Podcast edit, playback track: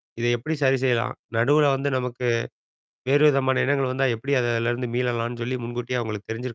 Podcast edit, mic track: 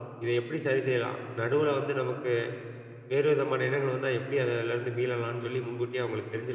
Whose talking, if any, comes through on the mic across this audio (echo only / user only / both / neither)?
echo only